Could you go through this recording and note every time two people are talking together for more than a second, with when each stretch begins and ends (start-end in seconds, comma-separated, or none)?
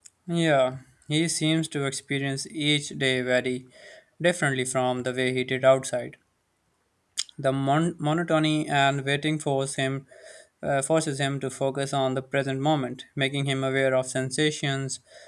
none